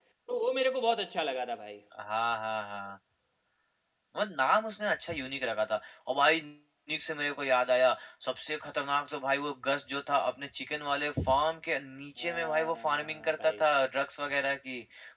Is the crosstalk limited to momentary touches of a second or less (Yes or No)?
No